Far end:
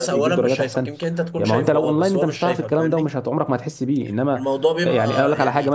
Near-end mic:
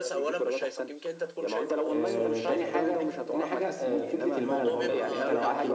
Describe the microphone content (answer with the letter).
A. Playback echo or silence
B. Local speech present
B